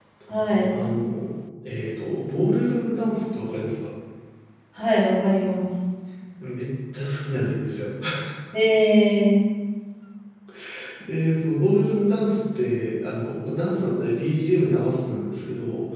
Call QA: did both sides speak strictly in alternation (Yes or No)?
Yes